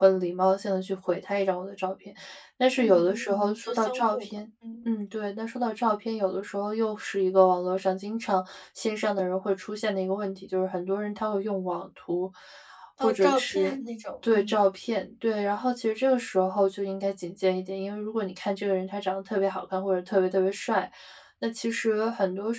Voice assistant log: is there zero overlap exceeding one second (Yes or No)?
No